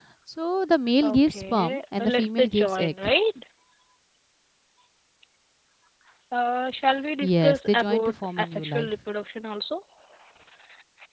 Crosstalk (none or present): present